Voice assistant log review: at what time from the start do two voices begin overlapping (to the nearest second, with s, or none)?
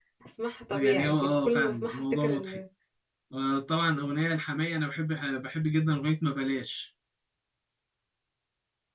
1 s